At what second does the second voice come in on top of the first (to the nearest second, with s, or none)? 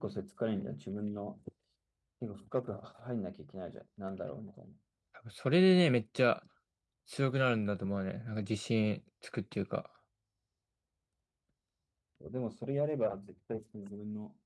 none